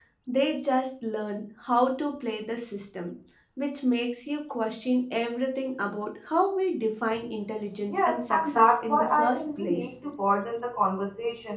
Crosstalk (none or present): present